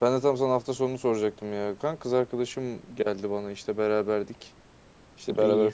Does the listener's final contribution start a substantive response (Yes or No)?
No